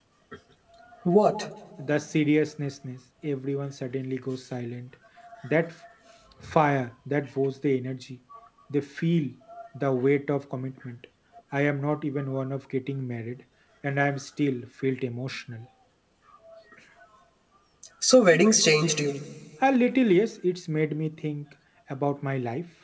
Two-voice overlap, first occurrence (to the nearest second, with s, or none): none